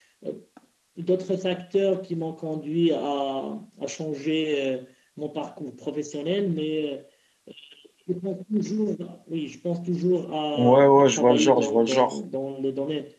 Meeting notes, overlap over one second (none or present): present